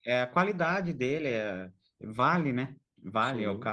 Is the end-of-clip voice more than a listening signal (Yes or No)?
No